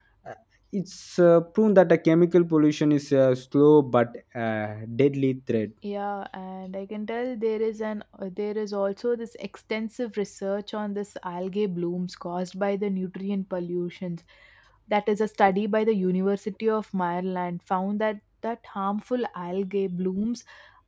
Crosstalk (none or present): none